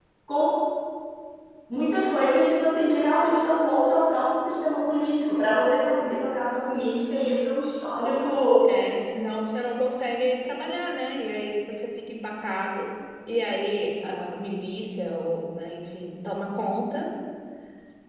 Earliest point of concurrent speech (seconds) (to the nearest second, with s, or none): none